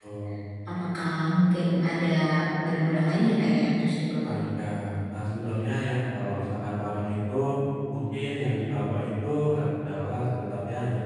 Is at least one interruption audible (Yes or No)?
No